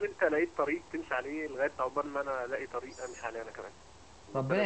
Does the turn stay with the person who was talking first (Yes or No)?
No